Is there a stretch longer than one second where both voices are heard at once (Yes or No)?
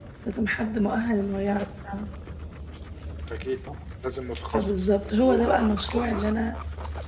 Yes